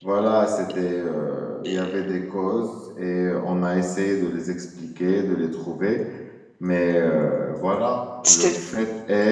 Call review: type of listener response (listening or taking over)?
listening